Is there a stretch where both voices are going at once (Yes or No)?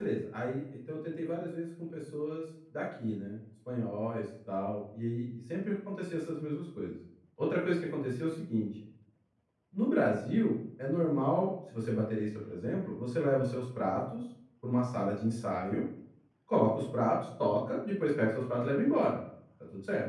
No